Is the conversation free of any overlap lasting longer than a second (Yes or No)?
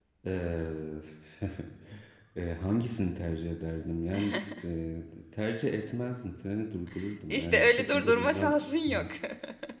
No